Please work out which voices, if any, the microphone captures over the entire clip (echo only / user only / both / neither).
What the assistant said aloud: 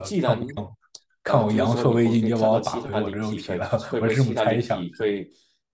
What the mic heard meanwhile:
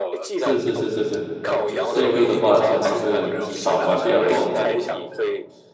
both